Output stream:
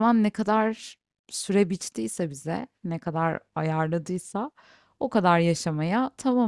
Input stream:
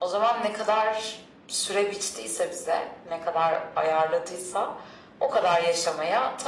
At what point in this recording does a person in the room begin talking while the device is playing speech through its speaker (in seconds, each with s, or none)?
none